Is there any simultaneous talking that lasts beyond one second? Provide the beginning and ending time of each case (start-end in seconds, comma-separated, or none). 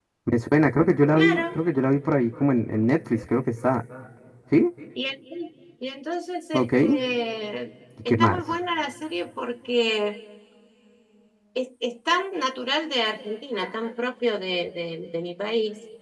none